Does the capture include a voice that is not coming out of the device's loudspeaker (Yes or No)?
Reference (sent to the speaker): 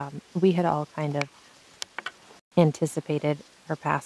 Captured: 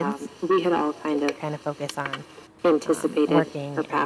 Yes